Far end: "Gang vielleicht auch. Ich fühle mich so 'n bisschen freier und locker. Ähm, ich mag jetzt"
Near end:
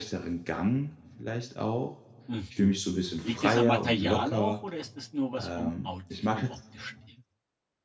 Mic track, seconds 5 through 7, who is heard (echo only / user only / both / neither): both